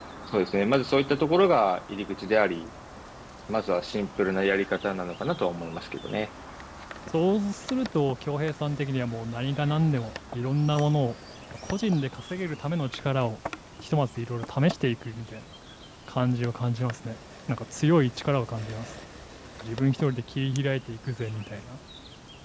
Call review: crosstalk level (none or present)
none